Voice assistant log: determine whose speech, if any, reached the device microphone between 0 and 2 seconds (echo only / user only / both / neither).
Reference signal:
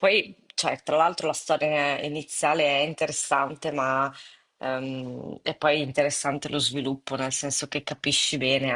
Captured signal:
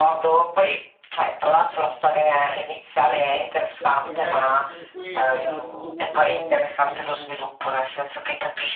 echo only